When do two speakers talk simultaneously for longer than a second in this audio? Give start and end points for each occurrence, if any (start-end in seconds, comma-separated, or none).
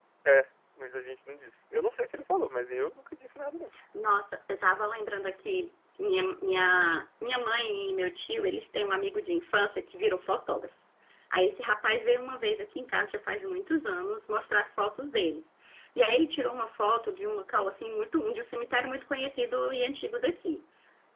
none